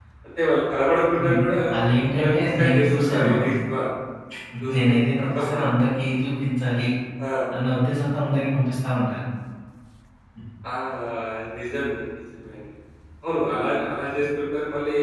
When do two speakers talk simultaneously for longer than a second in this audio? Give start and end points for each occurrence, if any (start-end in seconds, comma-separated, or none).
2.1-3.3